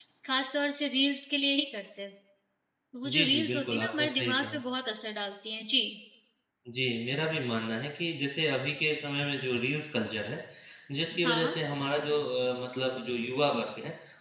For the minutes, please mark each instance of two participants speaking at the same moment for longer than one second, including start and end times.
3.1-4.6

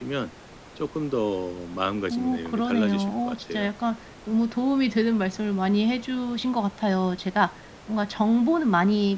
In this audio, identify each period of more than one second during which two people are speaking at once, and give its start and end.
2.1-3.7

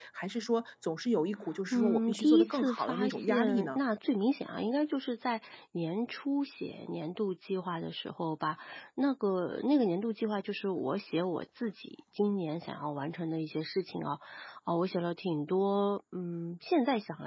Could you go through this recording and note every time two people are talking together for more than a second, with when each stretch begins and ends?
1.7-3.8

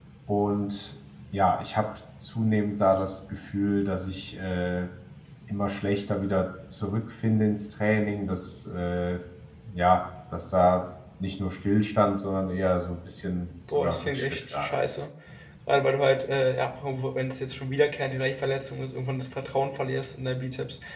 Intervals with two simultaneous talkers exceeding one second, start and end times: 13.8-15.0

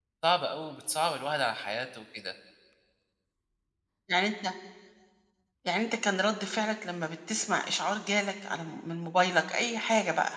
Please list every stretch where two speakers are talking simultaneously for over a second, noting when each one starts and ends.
none

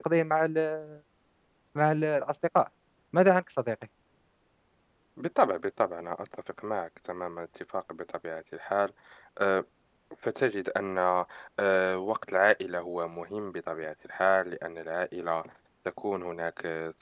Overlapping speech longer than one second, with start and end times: none

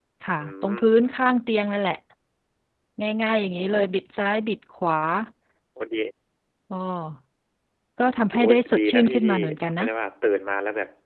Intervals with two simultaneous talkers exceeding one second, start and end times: 8.0-9.3

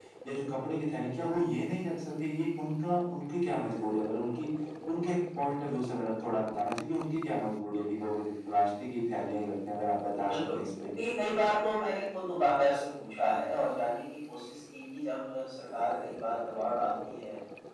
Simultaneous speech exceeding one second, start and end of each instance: none

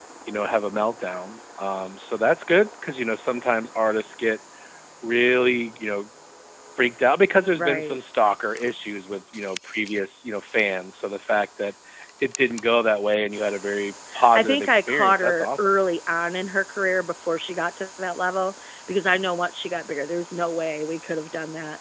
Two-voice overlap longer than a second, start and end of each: 14.3-15.7

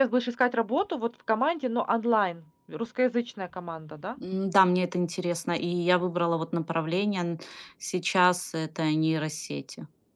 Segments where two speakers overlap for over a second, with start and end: none

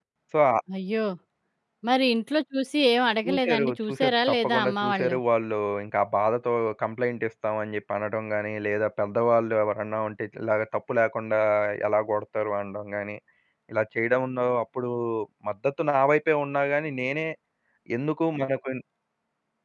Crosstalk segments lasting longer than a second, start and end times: 3.2-5.2

